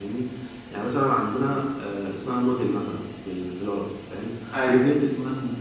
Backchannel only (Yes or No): Yes